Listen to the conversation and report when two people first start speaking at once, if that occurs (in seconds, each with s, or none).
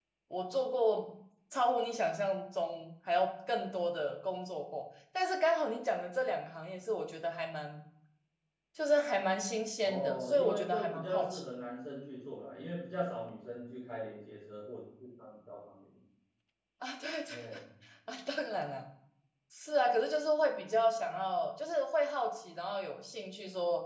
9.8 s